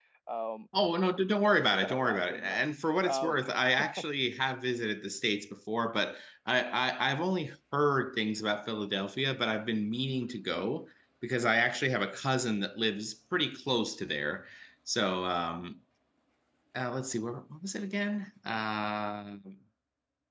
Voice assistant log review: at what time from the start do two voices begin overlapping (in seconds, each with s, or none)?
1.4 s